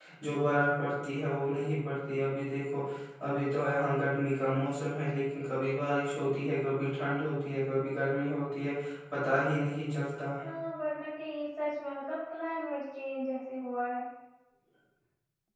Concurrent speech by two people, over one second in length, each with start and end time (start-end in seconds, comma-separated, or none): none